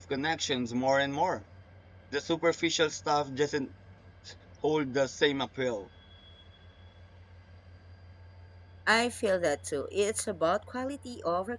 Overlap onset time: none

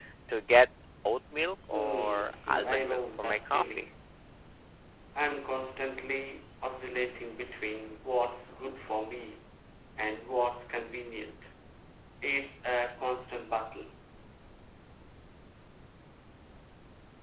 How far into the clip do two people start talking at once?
2 s

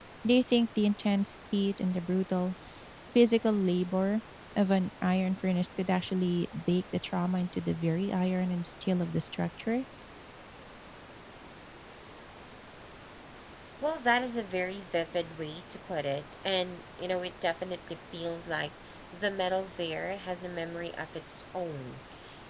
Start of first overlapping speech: none

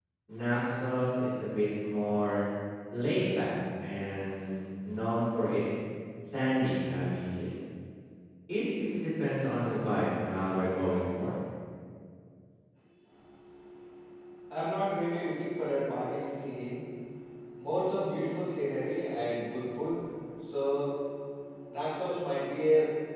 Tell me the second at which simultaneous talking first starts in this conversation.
none

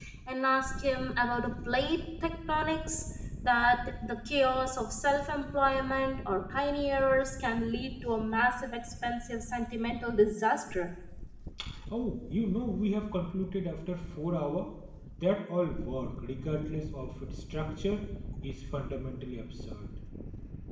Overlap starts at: none

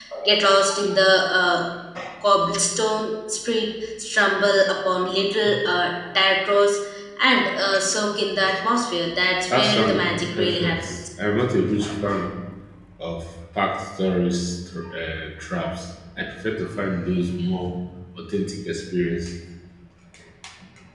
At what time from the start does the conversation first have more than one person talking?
10 s

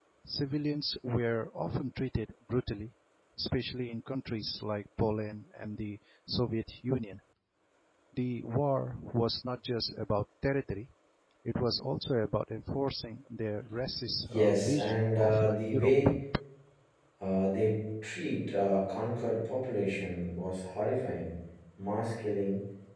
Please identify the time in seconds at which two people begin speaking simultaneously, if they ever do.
14 s

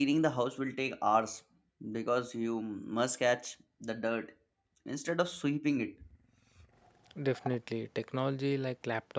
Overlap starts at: none

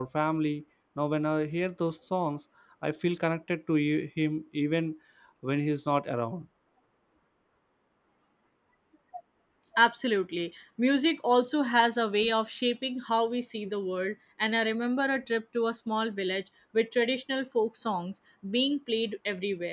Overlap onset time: none

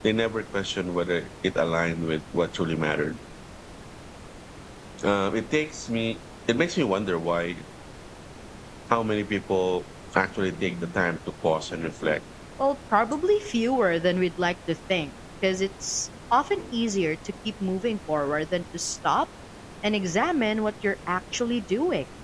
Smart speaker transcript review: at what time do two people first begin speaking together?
none

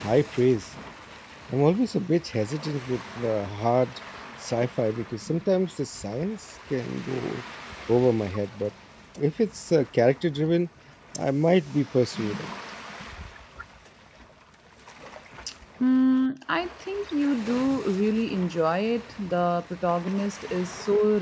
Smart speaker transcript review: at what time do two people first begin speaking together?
none

